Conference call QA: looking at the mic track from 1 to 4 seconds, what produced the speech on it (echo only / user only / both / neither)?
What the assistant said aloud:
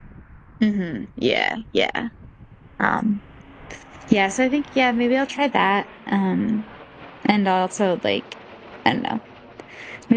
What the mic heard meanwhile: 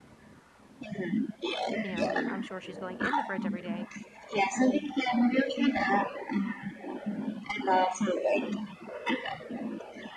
both